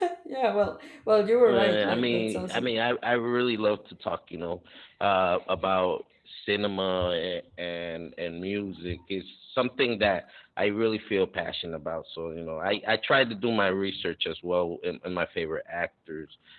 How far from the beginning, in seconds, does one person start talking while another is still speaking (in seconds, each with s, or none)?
1.4 s